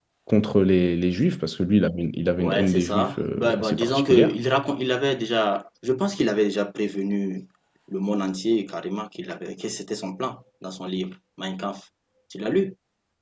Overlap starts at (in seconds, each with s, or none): 2.4 s